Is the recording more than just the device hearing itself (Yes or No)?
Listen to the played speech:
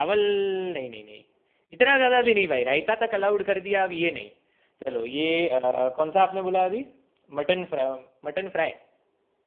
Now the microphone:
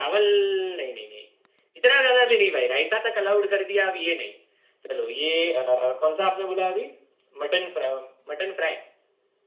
No